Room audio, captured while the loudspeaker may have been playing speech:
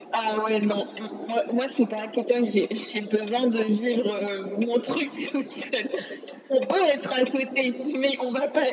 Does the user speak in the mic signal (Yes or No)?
No